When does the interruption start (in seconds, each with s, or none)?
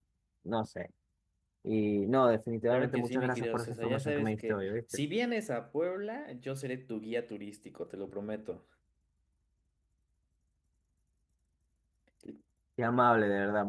2.7 s